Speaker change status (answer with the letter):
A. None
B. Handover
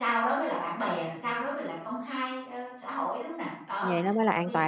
B